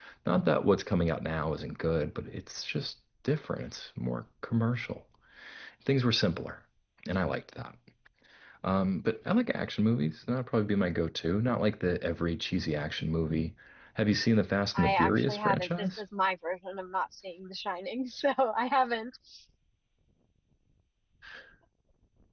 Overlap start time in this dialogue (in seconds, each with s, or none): 14.8 s